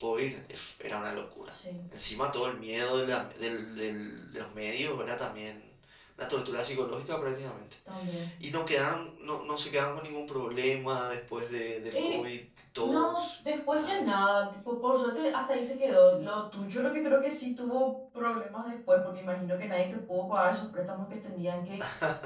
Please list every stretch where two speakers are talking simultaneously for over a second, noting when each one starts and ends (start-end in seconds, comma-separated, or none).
12.8-14.1